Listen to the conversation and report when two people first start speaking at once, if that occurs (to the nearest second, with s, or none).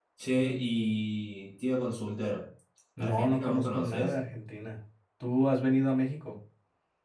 3 s